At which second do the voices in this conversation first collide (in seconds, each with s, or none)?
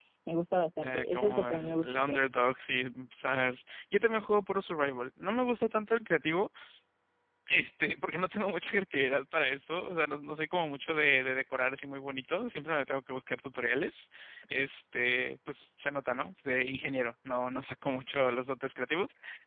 0.8 s